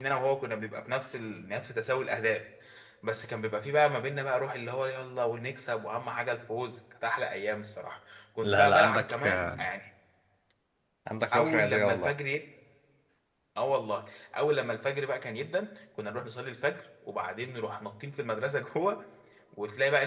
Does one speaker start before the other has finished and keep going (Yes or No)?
Yes